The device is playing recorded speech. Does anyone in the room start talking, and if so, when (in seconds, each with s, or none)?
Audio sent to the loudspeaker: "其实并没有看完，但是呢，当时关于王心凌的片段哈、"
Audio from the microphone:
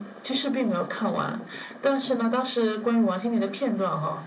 none